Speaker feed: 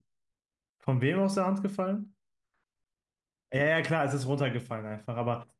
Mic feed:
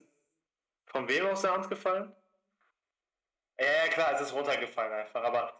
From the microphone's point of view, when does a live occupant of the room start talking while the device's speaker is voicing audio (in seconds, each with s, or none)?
none